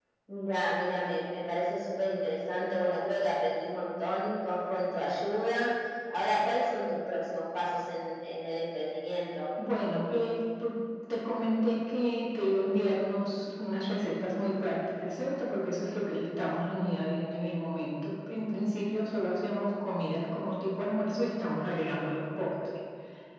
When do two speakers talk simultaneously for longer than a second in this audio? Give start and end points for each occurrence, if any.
none

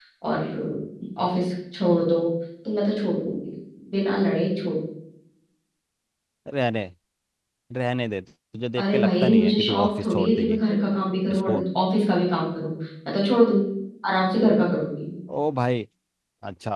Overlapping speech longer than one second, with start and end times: 8.8-10.6

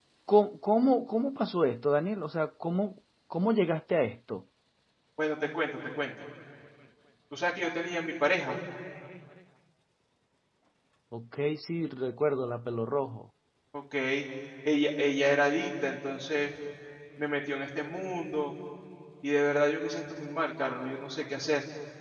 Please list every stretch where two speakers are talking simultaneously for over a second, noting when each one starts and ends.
none

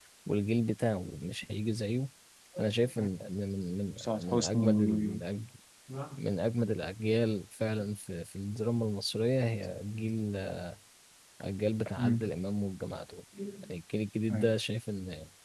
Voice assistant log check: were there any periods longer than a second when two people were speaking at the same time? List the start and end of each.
4.0-5.2

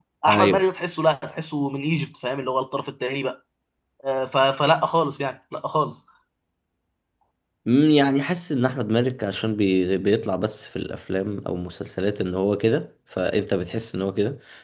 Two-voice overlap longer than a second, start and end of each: none

